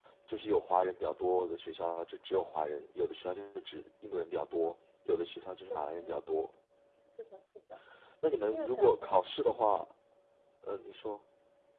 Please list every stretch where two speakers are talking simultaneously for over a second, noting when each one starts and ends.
8.4-9.8

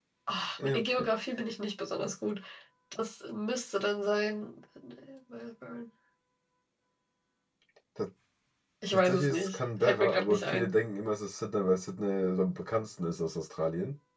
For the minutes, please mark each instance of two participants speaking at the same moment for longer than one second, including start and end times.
8.9-10.7

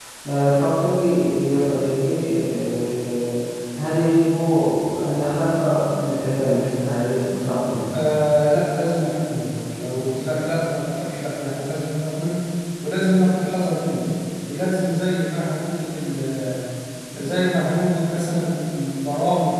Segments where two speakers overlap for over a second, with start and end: none

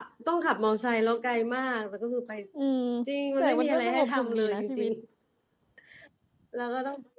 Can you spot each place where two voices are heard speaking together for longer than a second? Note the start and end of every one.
3.4-4.9

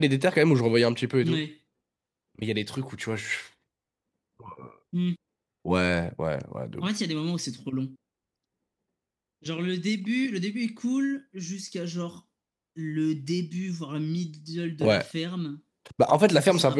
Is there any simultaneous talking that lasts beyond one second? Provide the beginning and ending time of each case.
none

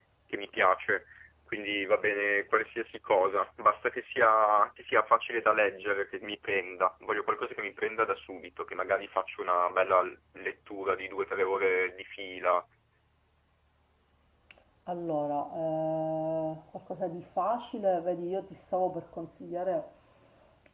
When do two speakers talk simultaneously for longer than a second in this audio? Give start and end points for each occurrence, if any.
none

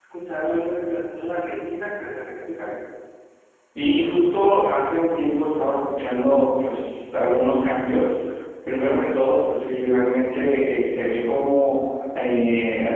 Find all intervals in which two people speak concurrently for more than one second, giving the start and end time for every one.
none

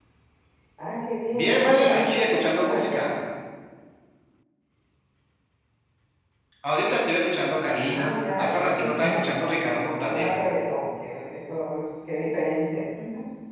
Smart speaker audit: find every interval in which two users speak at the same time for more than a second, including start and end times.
1.3-3.1, 7.9-10.3

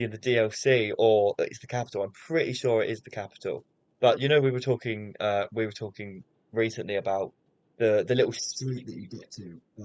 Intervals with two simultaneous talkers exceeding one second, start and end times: none

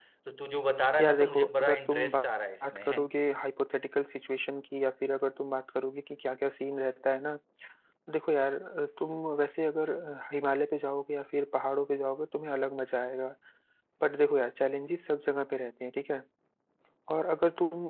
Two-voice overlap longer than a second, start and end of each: 1.0-2.2

